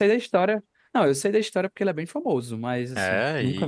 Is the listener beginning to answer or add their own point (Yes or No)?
Yes